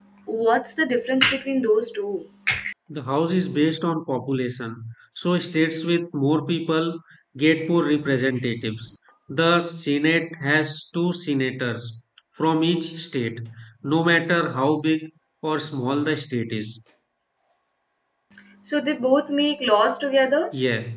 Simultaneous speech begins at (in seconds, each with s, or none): none